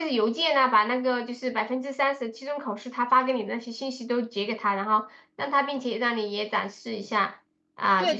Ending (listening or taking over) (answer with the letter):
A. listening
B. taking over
B